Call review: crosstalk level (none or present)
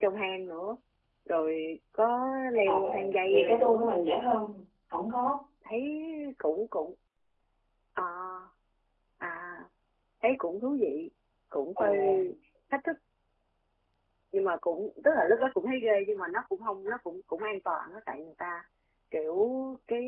present